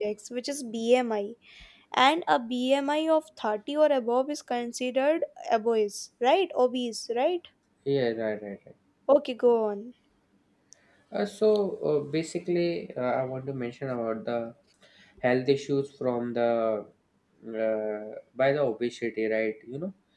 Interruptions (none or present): none